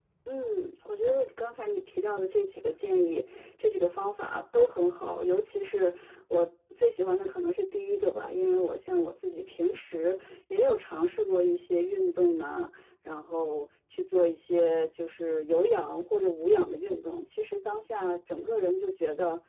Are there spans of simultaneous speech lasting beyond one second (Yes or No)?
No